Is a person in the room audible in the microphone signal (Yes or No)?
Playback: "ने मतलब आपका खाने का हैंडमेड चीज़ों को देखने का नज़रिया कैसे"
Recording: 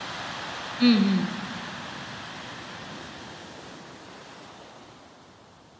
Yes